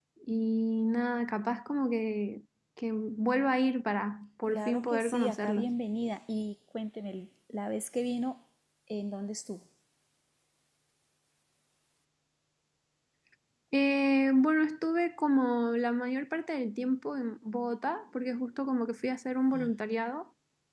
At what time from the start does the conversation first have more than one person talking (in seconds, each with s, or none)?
4.5 s